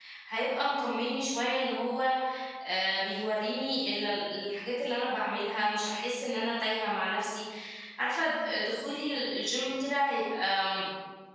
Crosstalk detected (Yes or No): No